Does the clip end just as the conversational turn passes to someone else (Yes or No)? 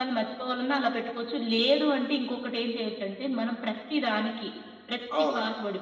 No